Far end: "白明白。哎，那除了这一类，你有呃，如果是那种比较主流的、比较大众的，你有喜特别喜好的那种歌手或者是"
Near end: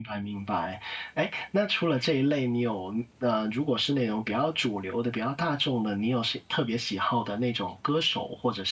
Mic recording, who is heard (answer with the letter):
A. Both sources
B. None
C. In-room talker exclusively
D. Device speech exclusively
D